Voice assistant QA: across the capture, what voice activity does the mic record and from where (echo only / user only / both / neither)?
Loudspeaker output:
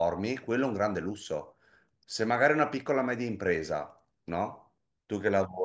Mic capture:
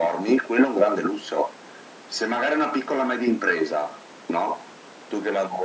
echo only